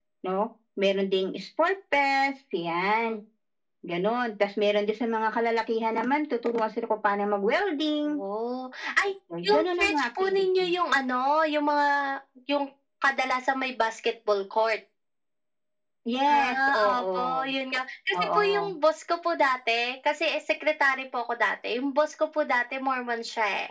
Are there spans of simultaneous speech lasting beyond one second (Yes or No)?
Yes